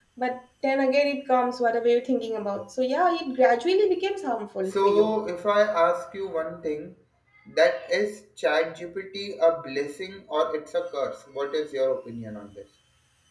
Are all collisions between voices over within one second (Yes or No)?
Yes